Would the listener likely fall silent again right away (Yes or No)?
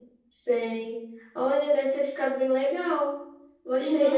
No